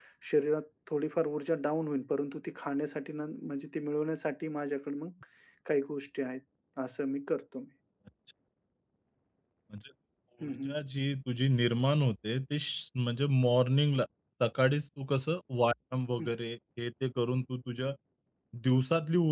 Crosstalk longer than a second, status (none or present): none